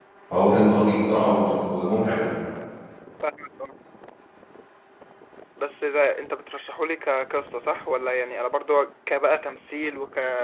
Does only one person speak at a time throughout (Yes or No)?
Yes